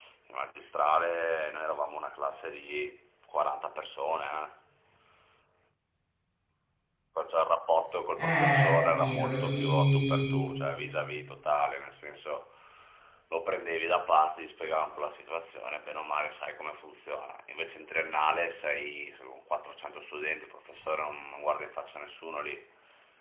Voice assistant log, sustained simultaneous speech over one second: present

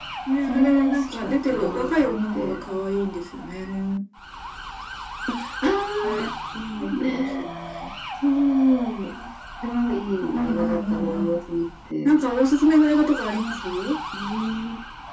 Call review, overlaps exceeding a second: present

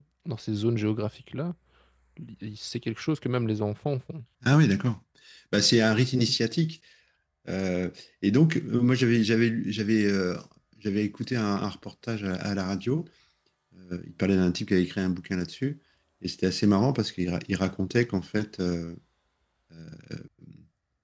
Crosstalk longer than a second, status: none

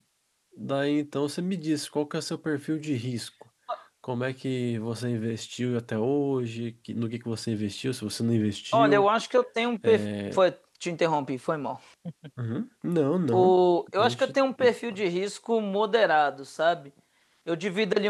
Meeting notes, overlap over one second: none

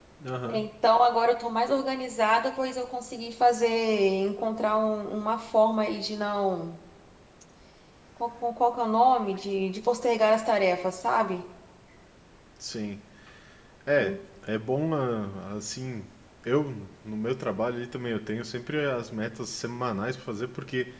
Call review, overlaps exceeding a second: none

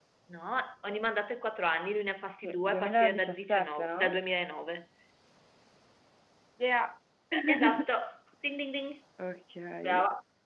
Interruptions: present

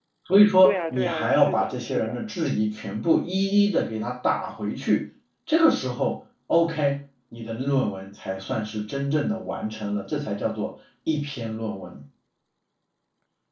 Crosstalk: present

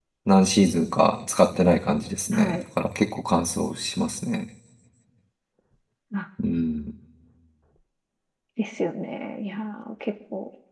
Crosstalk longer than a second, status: none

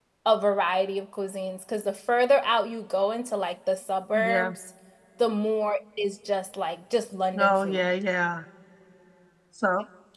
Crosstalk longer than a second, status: none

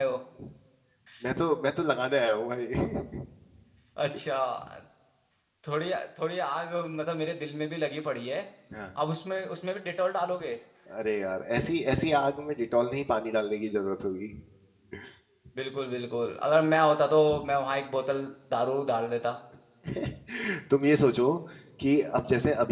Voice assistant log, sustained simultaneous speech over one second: none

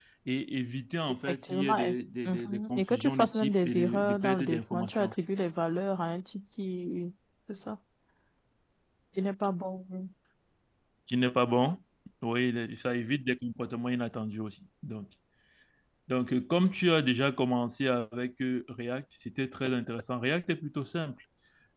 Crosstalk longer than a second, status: present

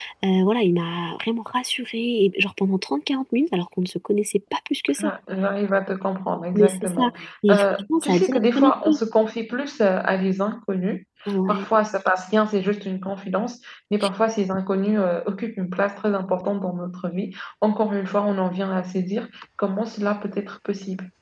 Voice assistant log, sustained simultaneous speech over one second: present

